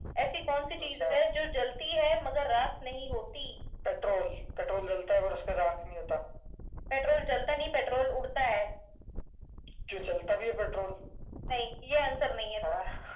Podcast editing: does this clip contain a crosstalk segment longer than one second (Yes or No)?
No